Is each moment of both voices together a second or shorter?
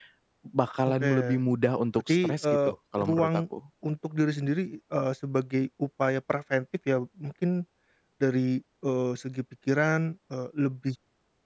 No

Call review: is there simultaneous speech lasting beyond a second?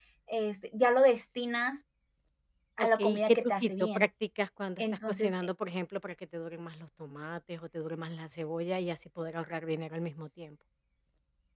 Yes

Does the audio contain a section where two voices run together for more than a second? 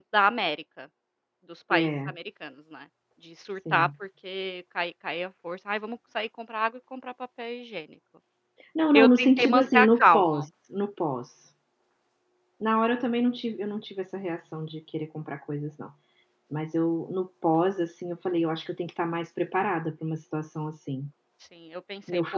Yes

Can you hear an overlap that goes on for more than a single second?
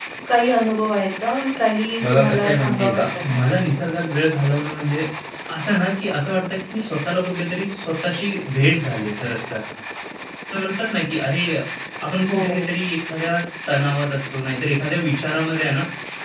Yes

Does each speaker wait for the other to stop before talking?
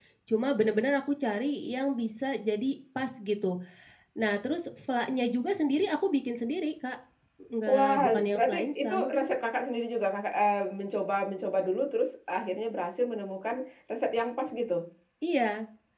No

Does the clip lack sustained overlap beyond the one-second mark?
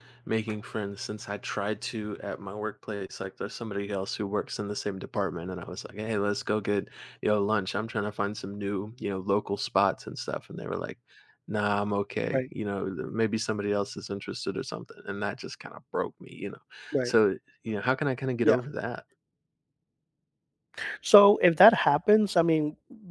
Yes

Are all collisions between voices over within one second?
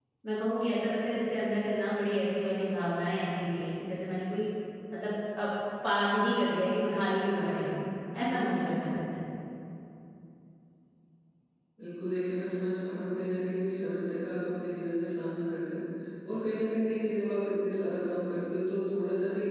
Yes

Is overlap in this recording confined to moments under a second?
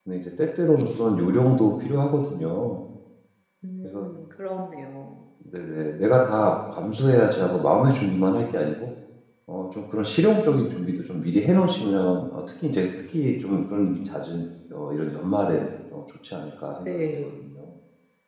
Yes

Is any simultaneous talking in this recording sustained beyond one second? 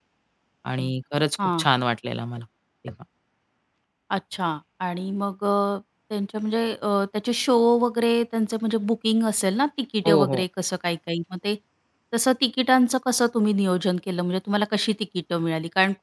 No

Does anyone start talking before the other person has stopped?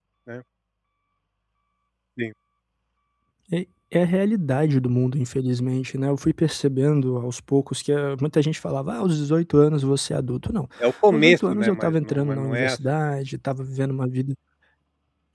Yes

